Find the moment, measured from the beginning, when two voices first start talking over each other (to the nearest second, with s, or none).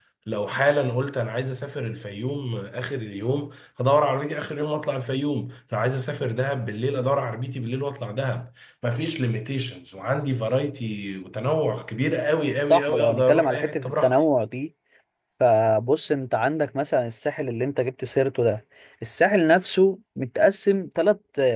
13 s